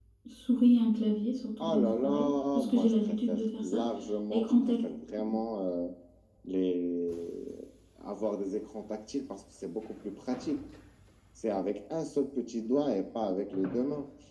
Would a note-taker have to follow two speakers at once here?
Yes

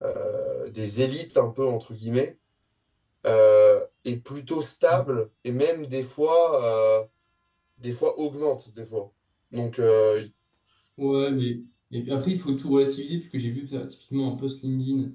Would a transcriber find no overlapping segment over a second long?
Yes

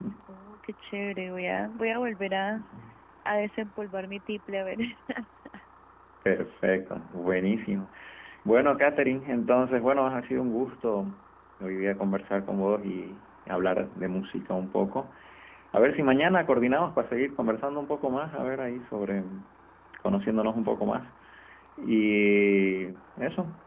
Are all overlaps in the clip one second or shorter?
Yes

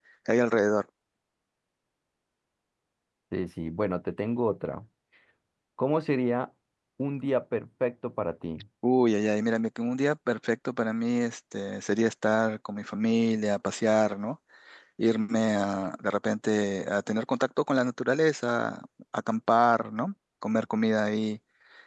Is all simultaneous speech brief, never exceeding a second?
Yes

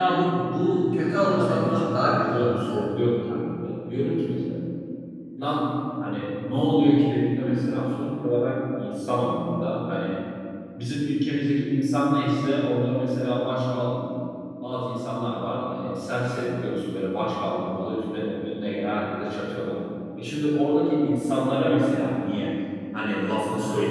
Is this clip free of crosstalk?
No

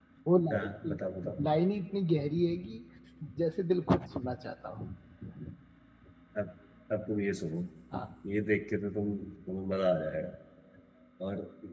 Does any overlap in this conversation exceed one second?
No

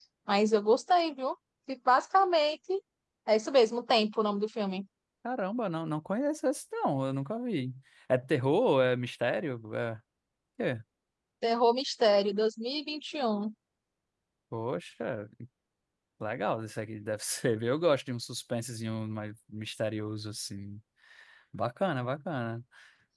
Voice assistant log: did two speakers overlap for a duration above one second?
No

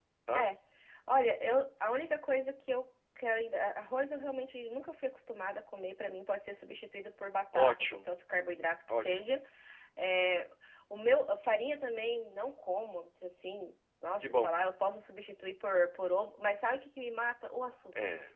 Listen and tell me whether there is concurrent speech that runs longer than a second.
No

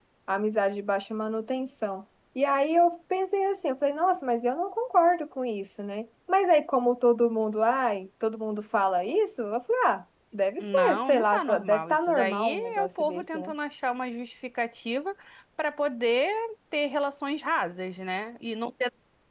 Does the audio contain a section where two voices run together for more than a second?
Yes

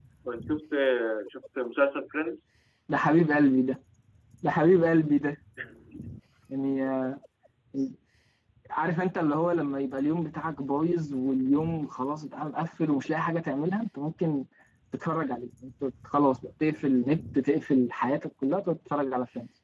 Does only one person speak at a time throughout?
Yes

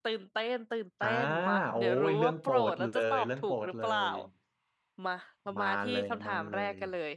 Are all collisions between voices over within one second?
No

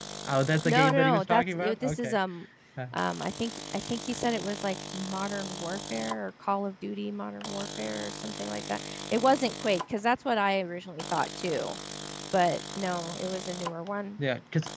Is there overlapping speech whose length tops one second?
Yes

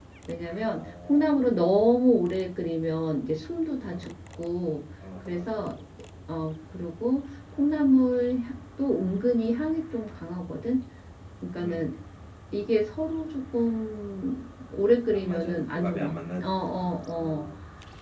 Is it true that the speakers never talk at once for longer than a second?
No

